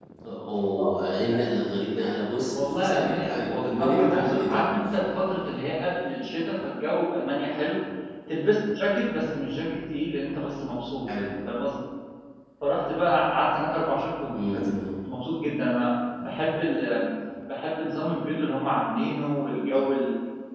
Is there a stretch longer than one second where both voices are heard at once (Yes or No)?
Yes